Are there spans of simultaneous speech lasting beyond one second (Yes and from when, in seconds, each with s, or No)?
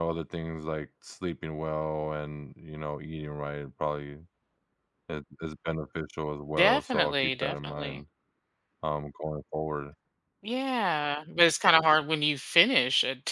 Yes, from 6.6 s